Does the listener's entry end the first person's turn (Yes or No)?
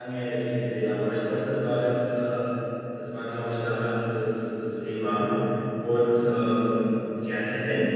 No